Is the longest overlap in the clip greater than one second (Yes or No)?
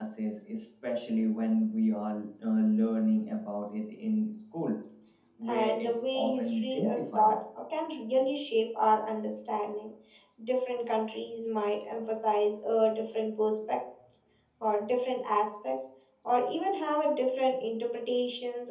Yes